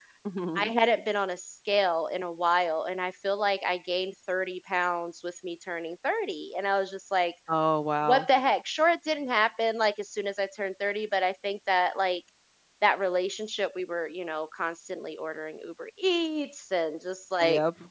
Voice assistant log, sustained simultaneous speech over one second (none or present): none